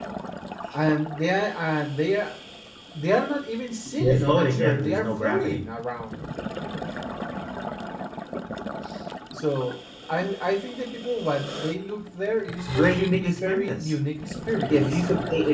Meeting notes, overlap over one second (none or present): present